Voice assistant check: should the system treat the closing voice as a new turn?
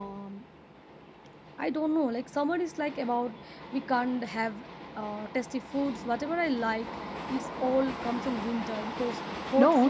Yes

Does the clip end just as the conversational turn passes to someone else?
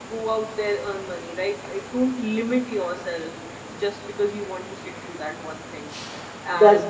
Yes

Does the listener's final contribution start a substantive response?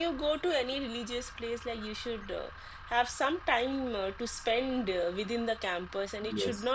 No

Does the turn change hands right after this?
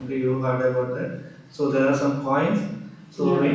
No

